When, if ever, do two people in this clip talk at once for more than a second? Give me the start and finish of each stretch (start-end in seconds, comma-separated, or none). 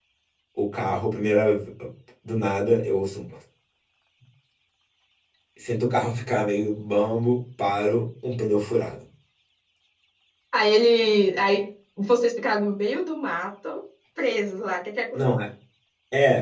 none